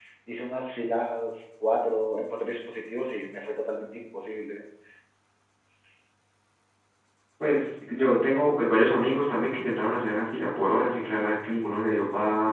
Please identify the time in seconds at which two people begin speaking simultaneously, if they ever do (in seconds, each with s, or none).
none